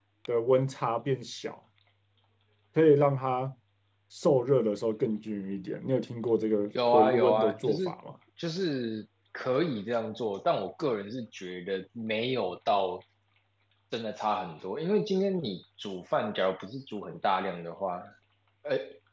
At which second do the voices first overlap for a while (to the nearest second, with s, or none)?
7 s